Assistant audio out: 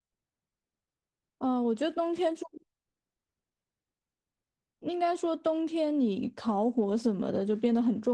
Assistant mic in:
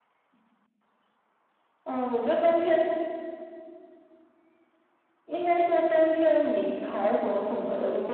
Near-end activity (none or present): none